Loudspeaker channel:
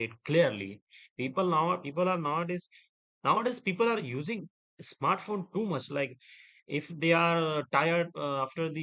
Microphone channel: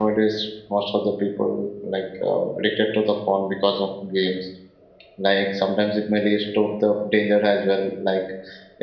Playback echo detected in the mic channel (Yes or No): No